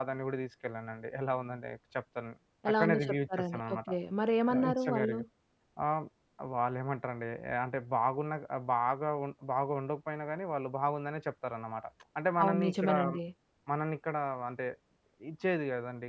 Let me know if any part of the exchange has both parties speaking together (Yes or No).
Yes